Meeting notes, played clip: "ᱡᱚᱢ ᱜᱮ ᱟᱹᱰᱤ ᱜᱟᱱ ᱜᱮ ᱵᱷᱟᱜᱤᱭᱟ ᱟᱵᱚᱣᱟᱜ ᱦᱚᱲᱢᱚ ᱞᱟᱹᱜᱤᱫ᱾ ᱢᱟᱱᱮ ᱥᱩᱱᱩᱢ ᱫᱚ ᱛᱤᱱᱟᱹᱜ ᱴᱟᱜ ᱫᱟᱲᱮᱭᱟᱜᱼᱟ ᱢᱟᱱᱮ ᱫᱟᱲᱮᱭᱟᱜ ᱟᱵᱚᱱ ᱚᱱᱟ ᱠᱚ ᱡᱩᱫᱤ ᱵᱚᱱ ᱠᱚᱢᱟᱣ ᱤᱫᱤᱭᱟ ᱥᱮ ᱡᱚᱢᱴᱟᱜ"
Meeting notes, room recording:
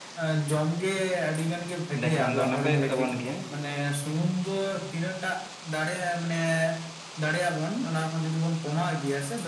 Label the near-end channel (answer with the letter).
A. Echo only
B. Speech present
B